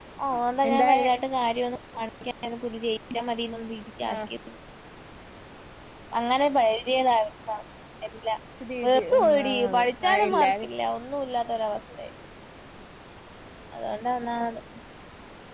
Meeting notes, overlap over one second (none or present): present